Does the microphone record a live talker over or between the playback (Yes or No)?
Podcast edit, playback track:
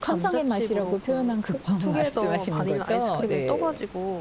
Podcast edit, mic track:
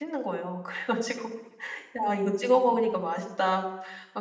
Yes